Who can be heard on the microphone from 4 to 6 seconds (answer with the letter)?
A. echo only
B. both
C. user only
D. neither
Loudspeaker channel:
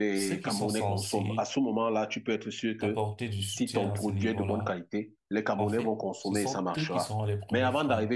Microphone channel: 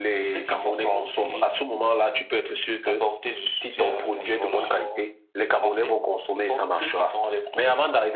B